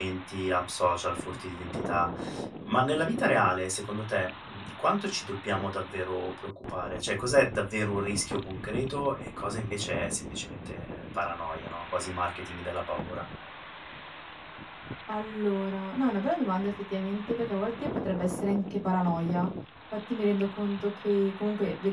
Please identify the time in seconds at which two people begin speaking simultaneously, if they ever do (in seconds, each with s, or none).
none